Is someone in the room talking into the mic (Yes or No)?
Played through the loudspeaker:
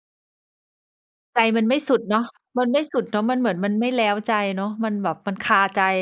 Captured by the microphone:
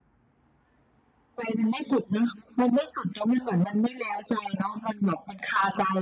No